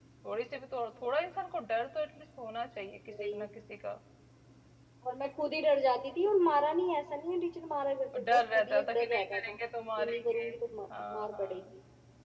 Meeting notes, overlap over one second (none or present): present